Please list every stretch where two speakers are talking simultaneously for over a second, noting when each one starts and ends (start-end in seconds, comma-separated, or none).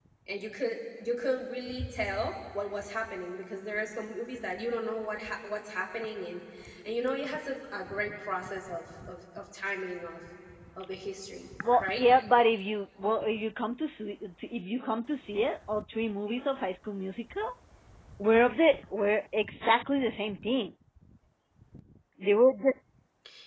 none